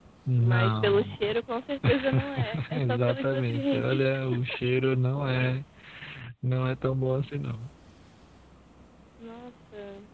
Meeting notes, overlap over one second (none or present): present